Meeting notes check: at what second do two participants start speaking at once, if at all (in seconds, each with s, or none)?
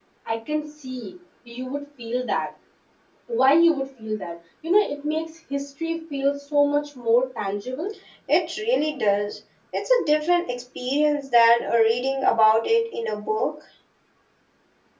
none